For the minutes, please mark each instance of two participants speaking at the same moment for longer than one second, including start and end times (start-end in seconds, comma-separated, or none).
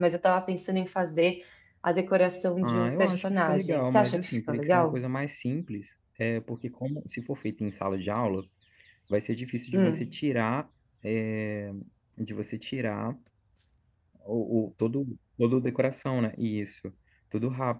2.6-5.0